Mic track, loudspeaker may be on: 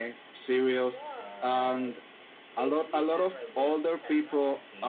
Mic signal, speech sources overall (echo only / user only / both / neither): both